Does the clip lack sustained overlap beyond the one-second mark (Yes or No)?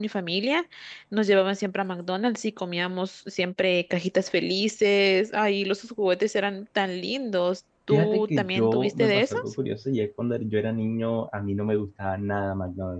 No